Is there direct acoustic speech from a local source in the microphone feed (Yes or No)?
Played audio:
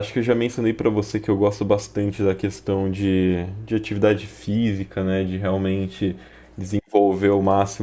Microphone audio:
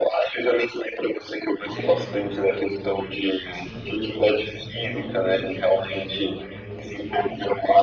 Yes